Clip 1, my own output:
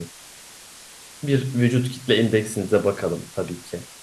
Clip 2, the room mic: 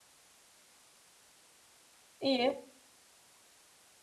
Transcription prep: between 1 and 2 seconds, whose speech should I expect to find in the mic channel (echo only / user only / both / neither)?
neither